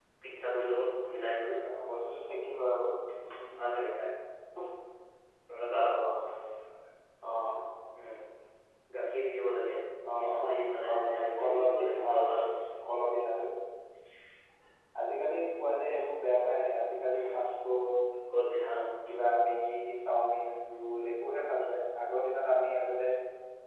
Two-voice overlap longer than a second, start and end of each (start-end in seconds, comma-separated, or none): 10.2-12.5